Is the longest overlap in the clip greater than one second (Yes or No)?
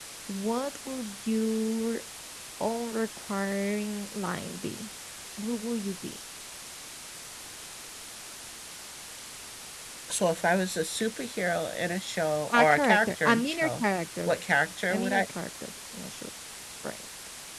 Yes